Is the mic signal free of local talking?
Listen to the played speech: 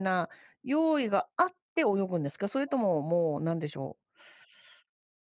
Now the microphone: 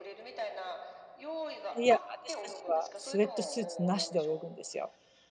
No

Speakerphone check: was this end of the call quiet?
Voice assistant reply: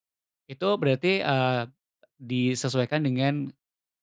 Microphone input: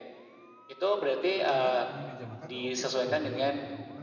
No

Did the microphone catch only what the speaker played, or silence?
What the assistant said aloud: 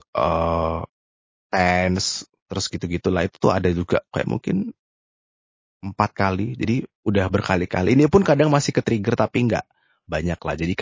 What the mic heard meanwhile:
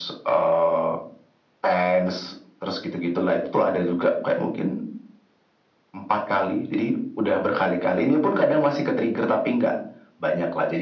Yes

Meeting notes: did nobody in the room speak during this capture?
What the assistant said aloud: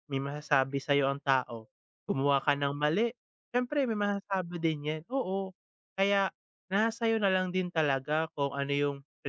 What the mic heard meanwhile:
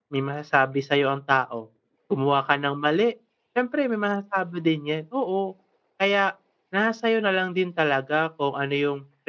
Yes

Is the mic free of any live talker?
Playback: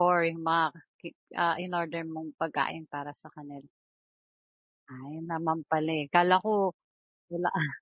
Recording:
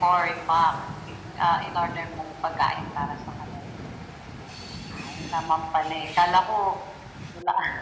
Yes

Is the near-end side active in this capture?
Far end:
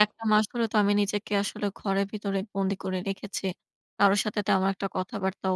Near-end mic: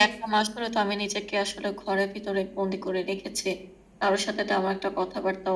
No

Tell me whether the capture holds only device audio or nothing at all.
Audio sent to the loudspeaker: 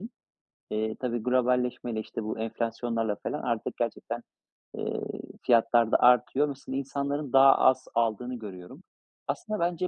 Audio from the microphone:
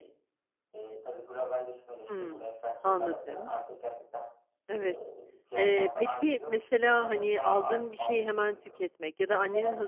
No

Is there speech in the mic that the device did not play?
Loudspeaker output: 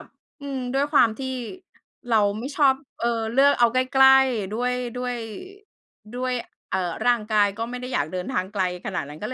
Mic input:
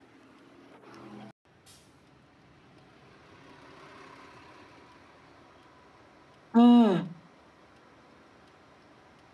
Yes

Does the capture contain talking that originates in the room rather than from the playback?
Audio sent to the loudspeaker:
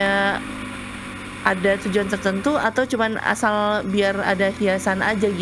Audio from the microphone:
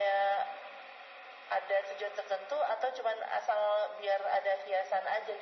No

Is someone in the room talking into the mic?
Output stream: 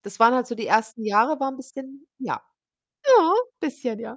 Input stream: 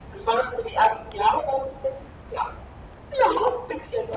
No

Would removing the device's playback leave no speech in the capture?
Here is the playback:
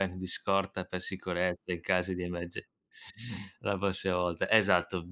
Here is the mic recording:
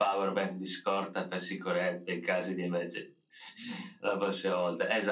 Yes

